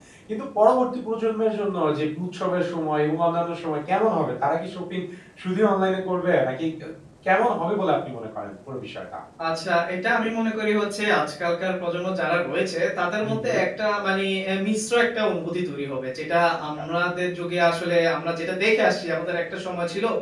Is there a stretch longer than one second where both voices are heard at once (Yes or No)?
No